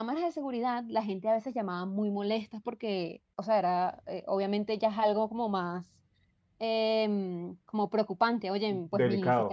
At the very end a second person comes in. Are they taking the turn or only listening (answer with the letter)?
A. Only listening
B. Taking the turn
B